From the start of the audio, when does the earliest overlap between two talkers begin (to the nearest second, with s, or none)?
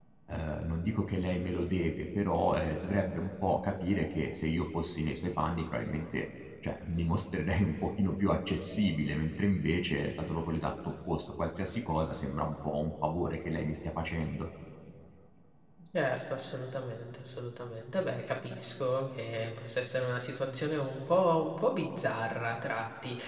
none